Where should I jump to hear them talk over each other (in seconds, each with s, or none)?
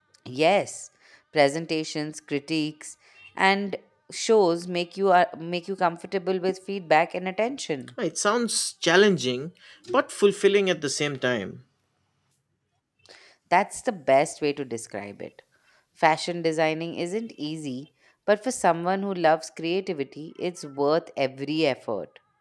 none